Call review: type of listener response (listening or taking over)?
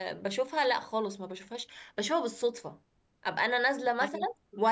listening